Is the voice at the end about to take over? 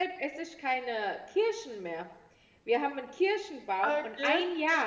No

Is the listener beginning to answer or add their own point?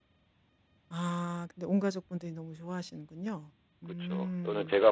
Yes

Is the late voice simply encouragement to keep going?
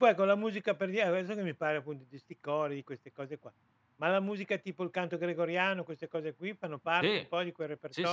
No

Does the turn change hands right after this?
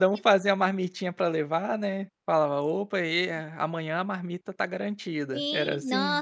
Yes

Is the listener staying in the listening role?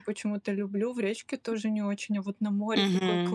No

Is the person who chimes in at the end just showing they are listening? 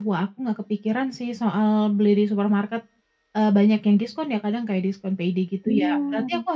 Yes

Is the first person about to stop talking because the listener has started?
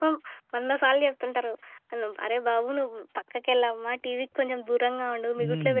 Yes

